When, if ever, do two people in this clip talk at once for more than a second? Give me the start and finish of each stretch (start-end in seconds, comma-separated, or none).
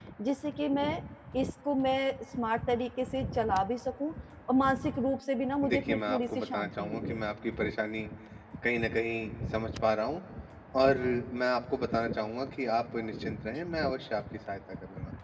5.7-7.2